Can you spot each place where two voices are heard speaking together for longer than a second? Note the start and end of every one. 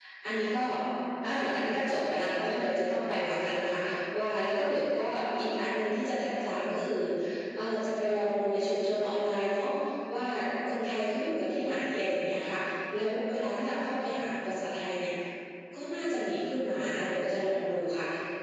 none

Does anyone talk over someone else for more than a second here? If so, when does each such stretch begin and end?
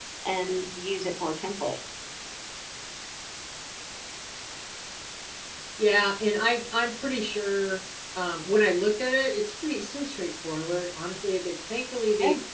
none

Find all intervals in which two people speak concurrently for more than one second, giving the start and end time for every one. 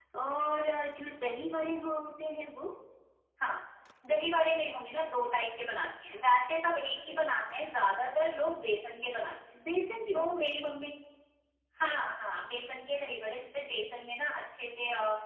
none

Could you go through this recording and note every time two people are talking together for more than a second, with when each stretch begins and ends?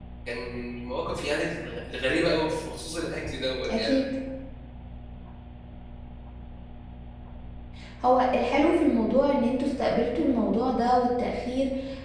none

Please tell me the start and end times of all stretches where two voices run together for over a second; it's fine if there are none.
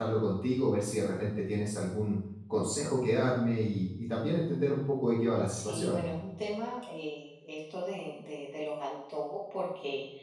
none

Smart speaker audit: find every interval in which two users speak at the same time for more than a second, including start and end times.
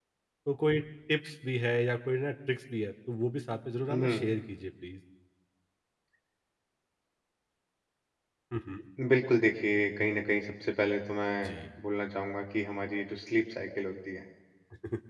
none

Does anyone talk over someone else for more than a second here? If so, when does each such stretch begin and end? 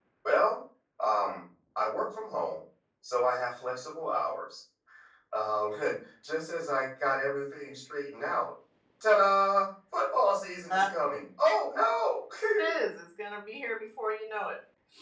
none

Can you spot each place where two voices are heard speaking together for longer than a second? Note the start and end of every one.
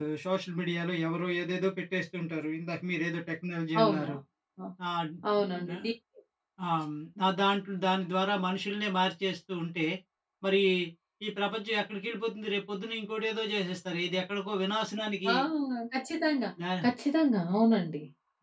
none

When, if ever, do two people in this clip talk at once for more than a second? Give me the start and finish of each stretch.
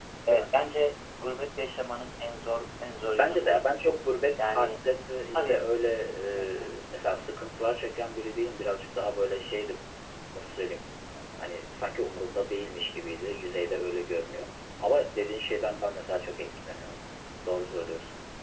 none

